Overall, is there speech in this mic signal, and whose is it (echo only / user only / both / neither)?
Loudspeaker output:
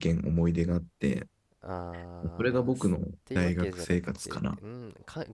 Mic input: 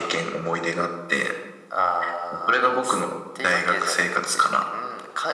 echo only